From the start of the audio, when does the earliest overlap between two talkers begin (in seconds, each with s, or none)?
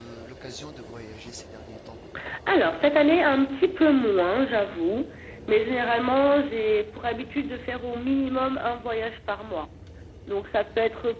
none